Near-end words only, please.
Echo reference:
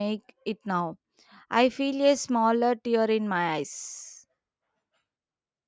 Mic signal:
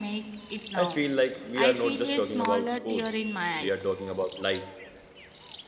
I feel like we are not just talking about food, we are talking about life.

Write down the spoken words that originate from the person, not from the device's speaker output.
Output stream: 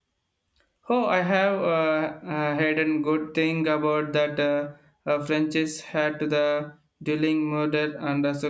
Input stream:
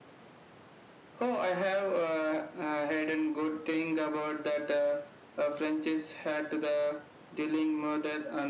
none

